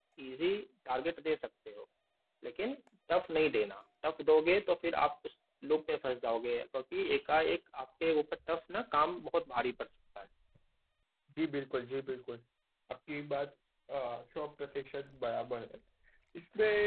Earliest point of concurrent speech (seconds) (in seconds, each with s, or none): none